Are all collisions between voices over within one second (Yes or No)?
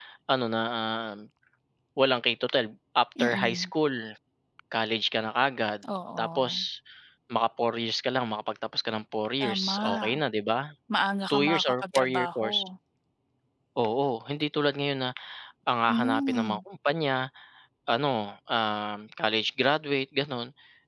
No